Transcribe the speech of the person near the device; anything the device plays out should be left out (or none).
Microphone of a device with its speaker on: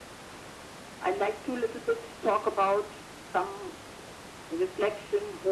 none